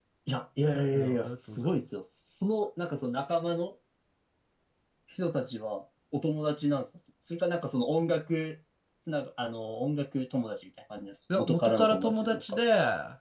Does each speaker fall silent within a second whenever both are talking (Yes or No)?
No